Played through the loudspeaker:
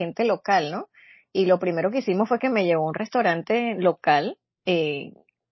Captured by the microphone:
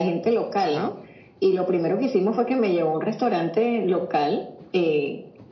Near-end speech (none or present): present